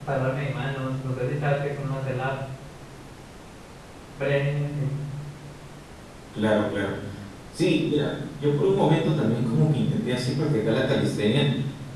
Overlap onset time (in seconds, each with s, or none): none